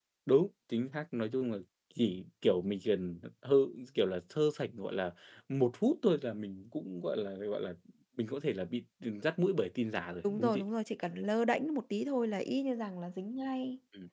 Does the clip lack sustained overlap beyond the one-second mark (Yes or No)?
Yes